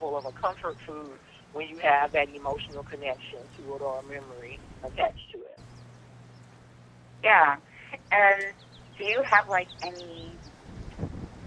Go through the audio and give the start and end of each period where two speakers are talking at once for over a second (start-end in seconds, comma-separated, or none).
none